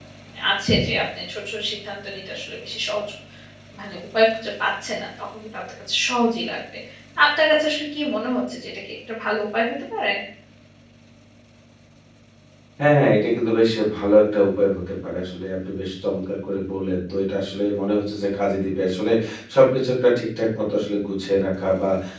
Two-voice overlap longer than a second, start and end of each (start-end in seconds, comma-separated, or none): none